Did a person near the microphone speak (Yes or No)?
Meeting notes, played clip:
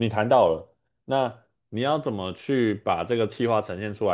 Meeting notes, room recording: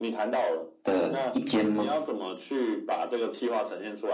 Yes